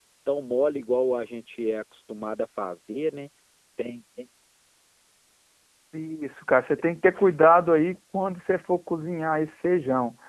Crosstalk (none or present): none